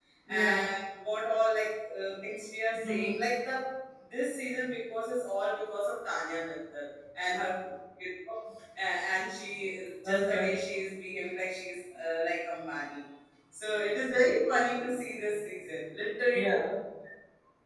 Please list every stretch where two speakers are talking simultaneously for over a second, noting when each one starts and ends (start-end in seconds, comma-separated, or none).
none